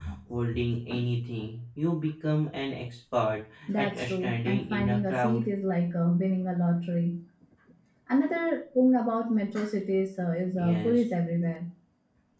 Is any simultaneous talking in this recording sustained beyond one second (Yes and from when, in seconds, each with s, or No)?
Yes, from 3.8 s